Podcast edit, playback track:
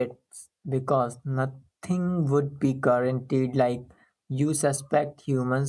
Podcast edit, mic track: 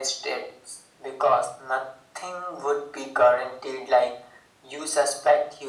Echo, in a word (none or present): present